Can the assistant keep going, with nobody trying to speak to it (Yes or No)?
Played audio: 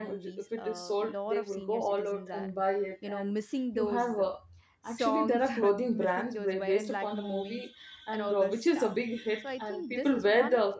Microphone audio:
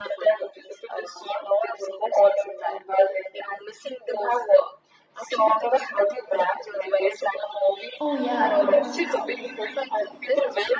No